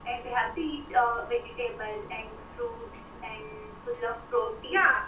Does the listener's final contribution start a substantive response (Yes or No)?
Yes